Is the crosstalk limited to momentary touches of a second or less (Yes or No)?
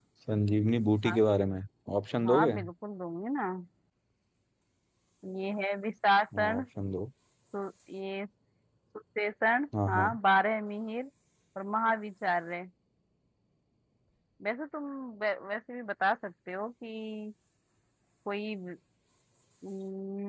Yes